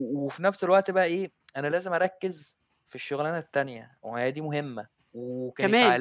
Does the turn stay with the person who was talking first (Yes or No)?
Yes